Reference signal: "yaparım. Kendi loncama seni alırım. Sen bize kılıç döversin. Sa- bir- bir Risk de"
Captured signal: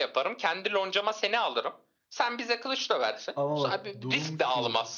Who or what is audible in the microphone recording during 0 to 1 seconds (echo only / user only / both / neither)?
echo only